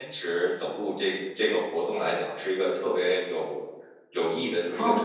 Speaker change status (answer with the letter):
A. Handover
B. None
A